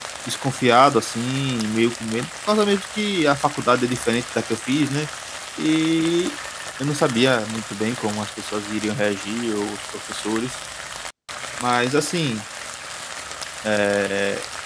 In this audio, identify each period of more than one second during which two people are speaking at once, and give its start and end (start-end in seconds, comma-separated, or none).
none